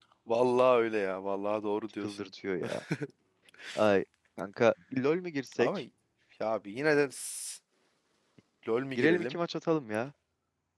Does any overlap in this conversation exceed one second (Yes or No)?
No